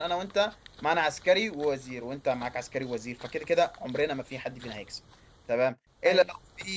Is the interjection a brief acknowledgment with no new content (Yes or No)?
Yes